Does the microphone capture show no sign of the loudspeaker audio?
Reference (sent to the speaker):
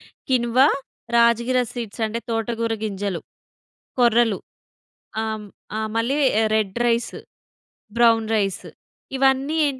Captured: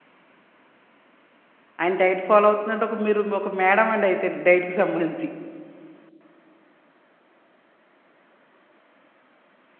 Yes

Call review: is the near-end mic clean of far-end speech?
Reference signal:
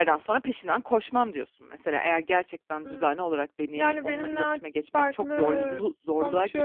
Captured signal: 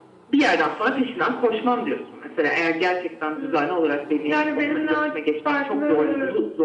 No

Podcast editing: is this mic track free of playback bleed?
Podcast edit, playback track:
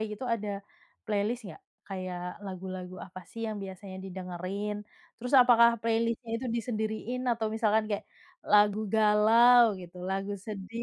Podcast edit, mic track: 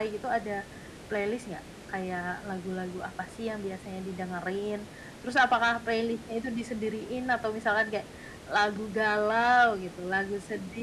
No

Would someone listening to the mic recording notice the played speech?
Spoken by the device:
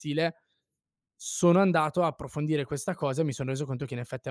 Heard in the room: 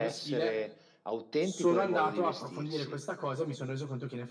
Yes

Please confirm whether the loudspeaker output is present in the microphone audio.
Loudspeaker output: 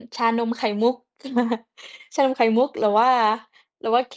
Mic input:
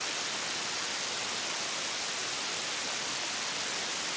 No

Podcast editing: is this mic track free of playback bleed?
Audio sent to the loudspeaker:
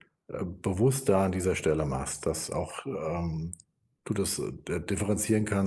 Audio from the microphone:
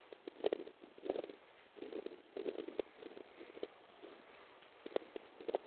Yes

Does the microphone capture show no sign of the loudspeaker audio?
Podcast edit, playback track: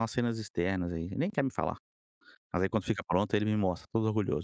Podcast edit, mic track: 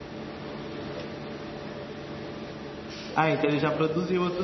Yes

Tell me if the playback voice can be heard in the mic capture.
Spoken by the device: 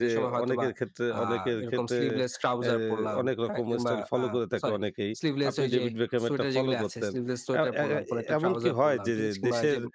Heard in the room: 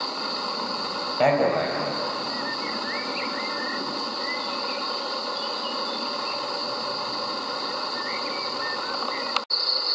No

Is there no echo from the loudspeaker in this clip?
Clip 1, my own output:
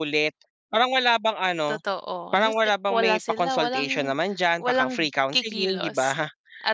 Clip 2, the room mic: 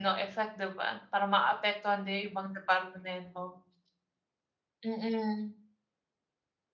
Yes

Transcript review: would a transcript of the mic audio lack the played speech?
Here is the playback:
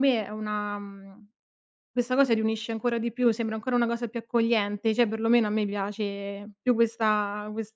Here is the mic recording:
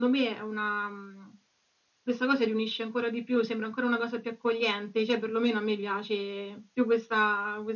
No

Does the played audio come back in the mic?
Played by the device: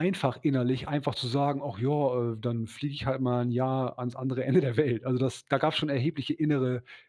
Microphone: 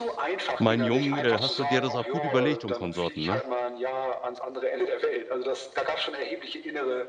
Yes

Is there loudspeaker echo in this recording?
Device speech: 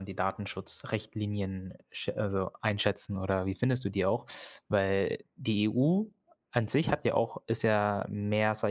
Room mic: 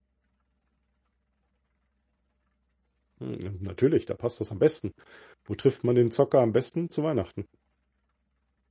No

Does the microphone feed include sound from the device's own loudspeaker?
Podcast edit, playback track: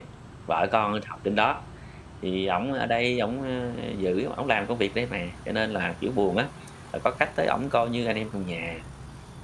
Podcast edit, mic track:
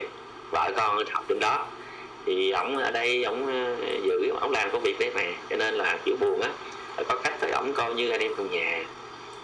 Yes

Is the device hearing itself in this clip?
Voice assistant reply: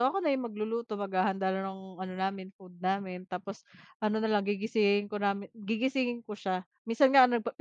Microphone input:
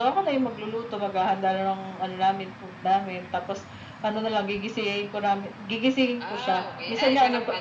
Yes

